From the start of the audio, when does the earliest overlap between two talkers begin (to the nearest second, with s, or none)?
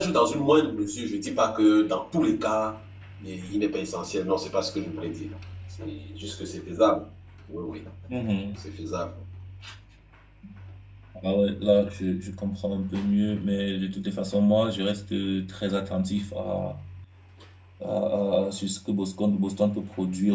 none